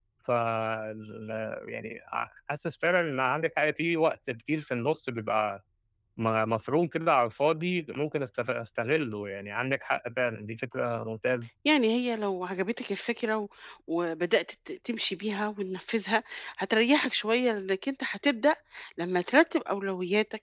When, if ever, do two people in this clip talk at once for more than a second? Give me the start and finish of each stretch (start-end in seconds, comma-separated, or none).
none